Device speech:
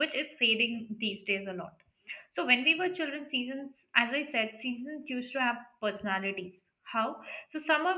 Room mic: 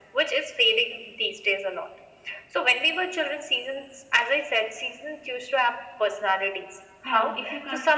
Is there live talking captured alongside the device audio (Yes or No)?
Yes